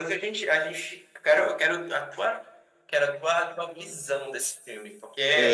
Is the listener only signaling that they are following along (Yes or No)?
No